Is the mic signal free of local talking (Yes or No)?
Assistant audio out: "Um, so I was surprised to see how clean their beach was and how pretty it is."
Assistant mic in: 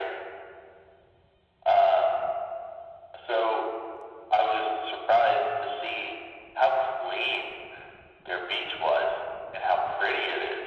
Yes